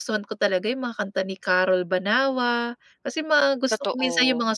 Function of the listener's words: listening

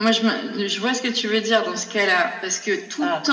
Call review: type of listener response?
listening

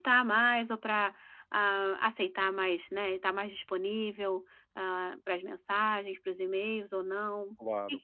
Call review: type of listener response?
taking over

